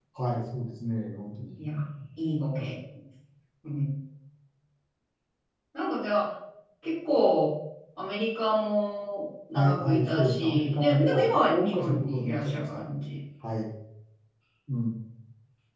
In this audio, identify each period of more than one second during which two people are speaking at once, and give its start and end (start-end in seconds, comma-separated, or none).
9.6-12.8